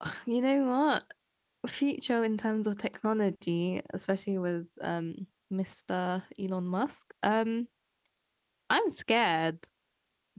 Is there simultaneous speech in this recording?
No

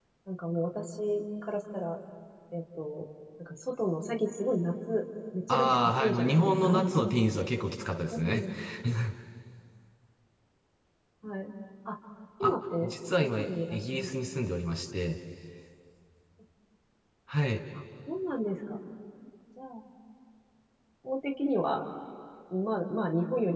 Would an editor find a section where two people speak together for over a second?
Yes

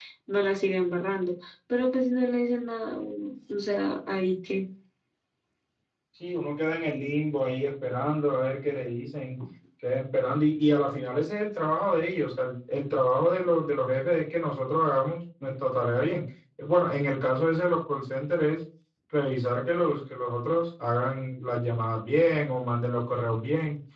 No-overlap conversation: Yes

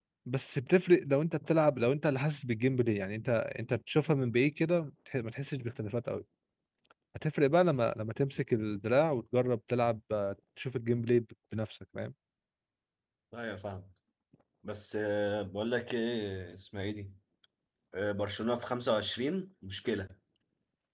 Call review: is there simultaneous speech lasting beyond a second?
No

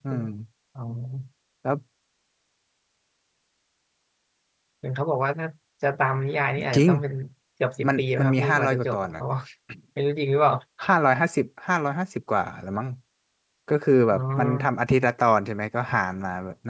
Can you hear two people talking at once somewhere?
Yes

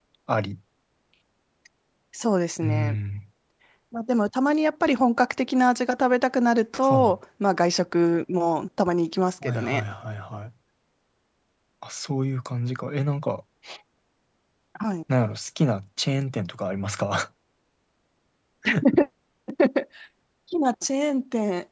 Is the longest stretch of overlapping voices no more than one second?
Yes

